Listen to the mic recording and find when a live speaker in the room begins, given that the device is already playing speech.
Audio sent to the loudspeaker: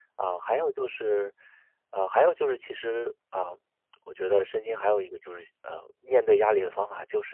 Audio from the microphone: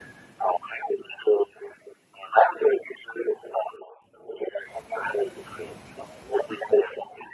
none

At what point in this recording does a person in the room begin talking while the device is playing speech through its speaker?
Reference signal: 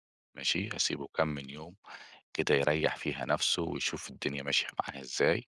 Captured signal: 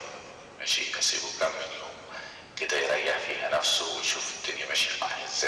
none

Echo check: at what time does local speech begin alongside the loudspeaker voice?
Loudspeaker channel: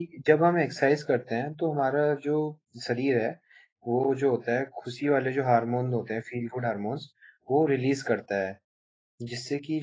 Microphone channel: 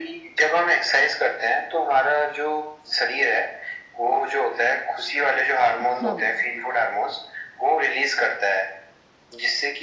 6 s

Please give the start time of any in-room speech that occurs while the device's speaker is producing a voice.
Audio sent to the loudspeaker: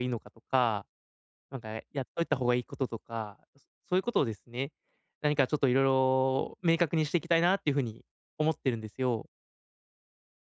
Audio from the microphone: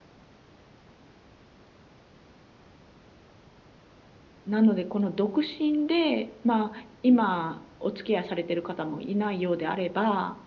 4 s

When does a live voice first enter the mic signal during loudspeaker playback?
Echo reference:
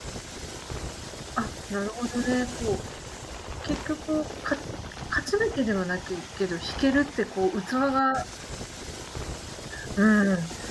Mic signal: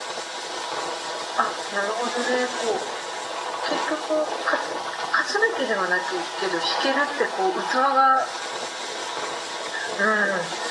none

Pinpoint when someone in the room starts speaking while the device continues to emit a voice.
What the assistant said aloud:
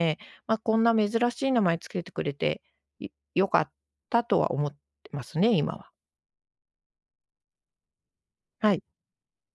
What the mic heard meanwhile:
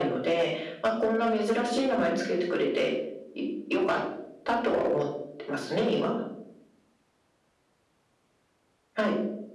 none

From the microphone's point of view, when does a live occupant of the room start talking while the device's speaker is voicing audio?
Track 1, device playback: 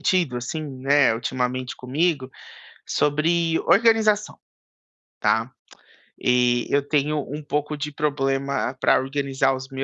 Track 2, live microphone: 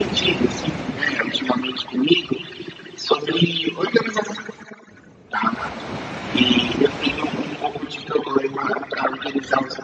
none

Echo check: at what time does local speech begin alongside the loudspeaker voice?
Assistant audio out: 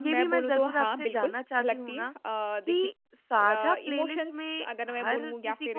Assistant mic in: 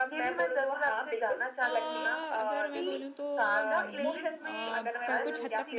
2 s

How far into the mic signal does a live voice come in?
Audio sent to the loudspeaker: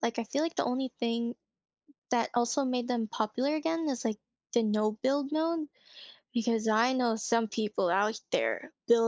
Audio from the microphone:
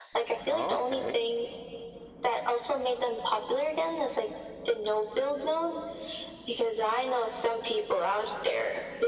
0 s

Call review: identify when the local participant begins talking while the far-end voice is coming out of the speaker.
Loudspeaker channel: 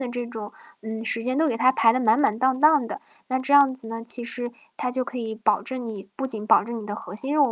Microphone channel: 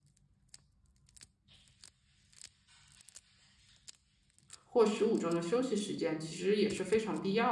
5 s

